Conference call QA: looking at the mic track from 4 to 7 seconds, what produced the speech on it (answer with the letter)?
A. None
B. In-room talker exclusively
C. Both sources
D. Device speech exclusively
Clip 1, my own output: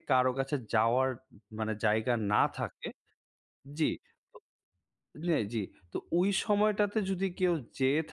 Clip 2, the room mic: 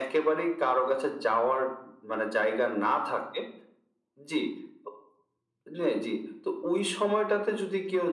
D